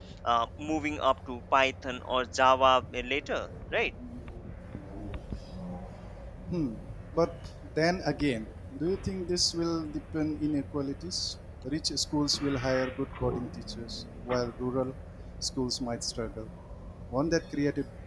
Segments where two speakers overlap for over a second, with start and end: none

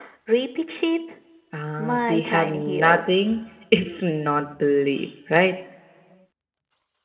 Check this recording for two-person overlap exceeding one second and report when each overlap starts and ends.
1.8-3.0

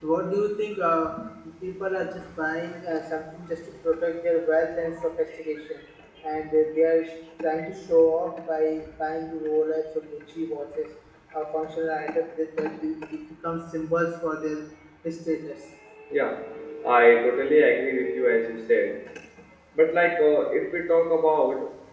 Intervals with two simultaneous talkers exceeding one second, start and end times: none

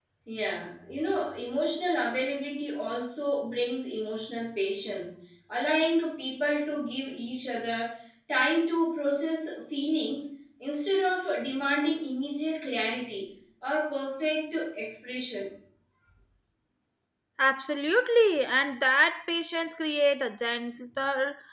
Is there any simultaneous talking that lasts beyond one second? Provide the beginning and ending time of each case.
none

